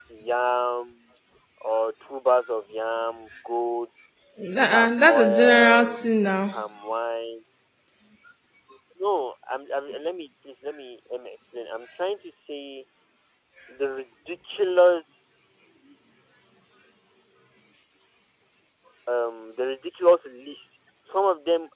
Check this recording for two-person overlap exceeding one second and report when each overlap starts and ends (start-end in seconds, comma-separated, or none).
4.7-6.0